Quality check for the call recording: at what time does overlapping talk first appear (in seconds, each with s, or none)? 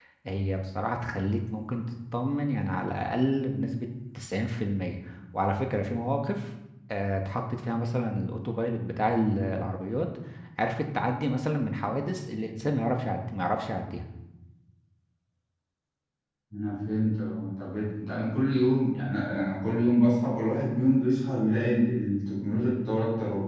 none